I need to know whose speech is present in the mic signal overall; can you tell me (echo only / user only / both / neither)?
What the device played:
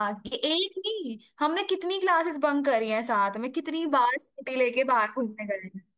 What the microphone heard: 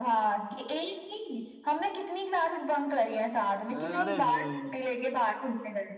both